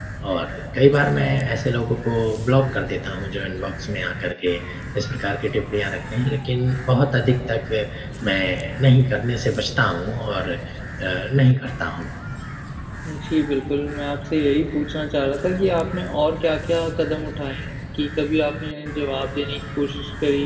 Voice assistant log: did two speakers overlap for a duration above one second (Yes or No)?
No